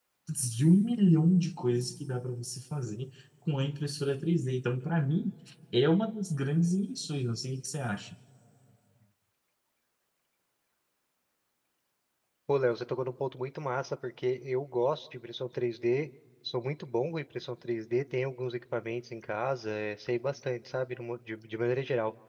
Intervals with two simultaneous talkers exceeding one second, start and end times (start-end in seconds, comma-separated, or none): none